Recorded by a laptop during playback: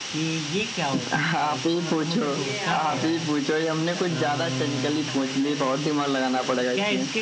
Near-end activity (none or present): present